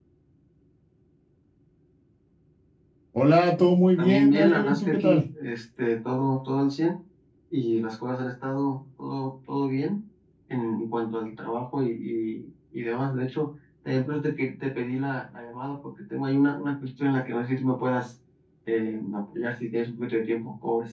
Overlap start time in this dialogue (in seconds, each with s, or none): 4.0 s